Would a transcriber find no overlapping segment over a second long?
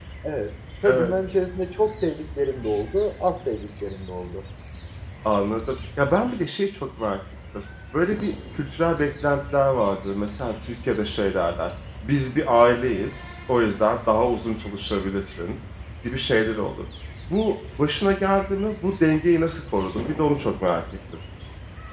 Yes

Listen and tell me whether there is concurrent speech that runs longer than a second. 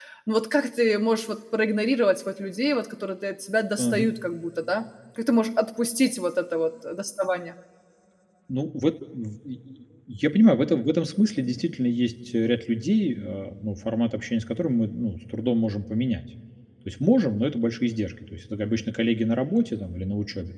No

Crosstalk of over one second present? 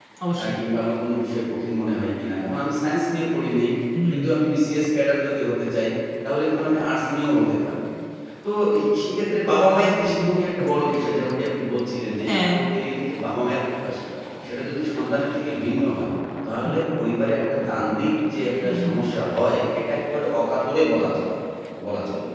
No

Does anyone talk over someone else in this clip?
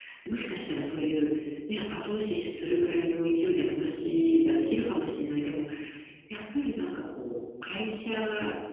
No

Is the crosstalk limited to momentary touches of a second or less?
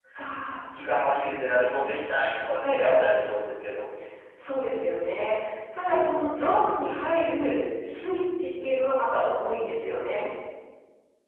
Yes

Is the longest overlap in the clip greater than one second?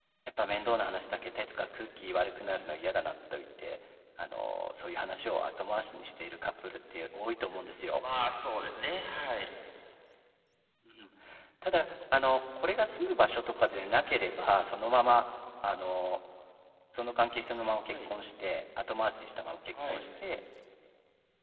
No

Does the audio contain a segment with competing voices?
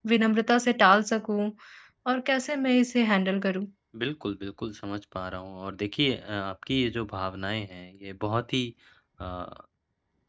No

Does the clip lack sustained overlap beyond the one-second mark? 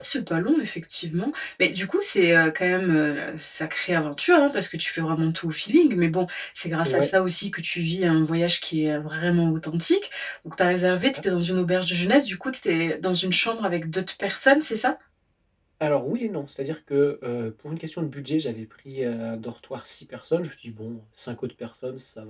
Yes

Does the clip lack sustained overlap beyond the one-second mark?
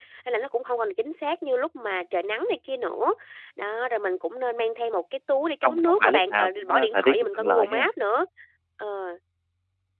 No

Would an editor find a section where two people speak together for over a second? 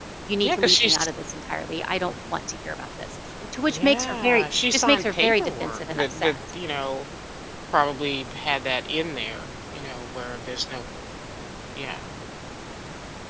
Yes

